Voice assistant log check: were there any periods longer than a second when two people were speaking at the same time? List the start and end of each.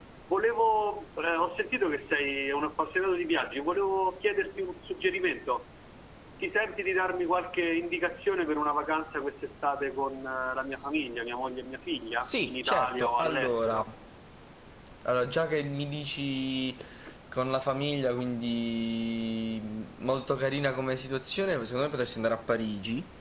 12.2-13.8

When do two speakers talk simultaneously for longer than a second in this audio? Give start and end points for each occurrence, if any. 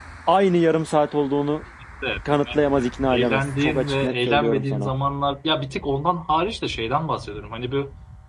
2.3-4.9

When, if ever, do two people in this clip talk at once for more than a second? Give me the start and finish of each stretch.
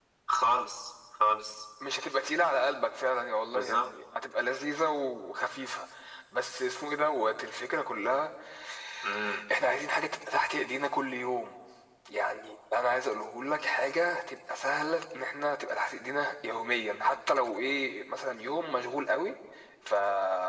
none

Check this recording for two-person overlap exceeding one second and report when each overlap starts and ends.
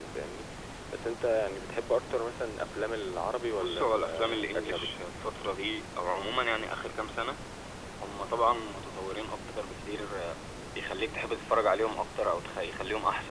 3.5-4.9

